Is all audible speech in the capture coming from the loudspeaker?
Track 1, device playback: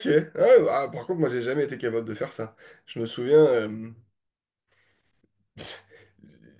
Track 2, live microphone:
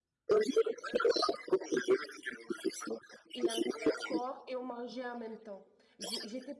No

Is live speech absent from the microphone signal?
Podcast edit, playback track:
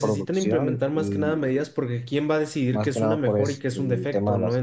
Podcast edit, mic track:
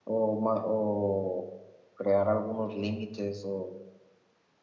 No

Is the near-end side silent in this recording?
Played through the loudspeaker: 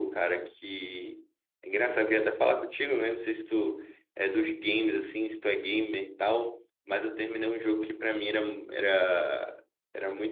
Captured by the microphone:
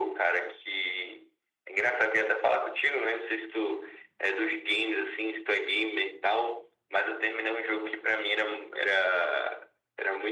Yes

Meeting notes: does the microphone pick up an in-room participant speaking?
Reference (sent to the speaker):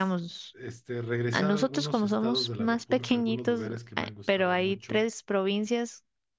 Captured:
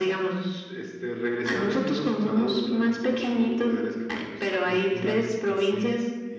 Yes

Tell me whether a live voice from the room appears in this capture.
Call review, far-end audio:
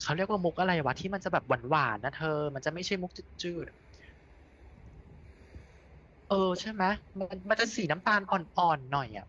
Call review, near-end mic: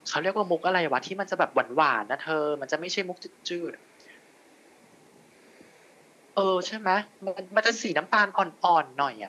No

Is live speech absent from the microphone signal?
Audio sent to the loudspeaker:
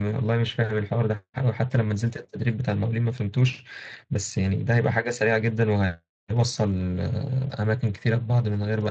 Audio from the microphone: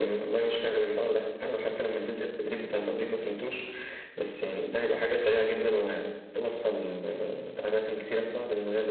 Yes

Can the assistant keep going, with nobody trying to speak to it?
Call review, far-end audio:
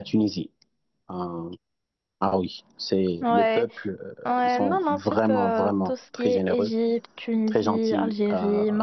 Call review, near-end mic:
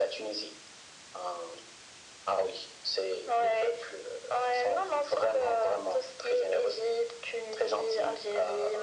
Yes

